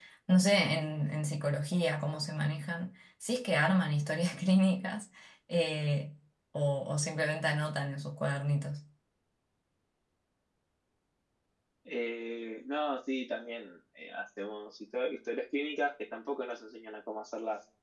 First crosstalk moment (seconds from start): none

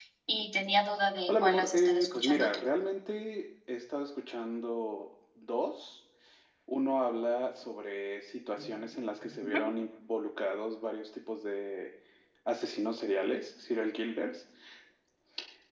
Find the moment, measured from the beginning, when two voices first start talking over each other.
1.3 s

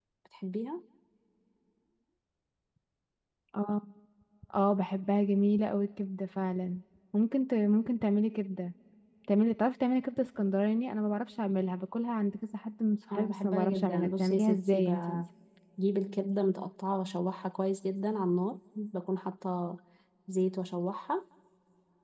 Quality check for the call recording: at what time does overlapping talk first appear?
13.1 s

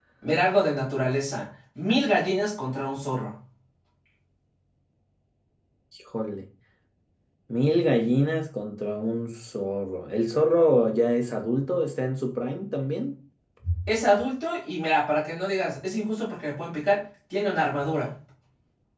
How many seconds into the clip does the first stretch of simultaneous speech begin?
none

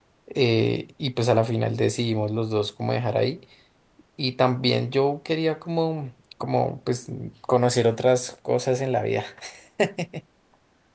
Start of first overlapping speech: none

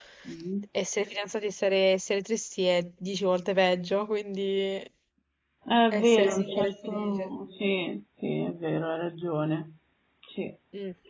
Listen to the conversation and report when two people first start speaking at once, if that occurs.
5.9 s

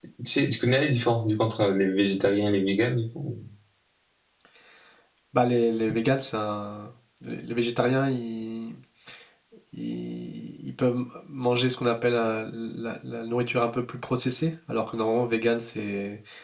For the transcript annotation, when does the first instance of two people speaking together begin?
none

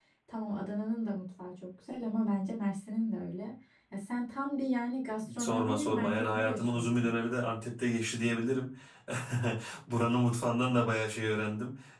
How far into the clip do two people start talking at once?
5.2 s

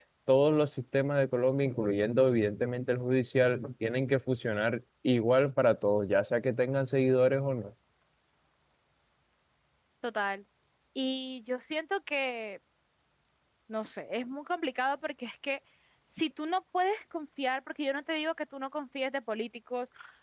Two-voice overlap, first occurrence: none

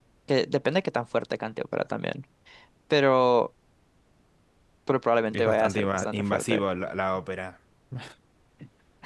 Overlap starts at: 5.3 s

